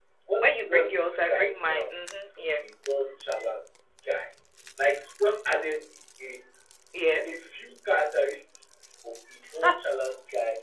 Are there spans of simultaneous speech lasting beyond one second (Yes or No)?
Yes